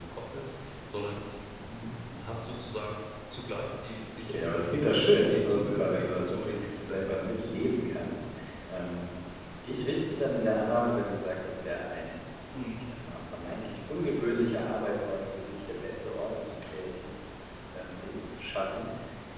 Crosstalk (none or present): present